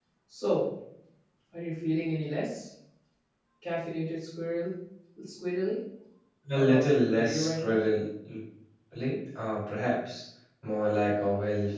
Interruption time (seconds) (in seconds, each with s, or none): 6.5 s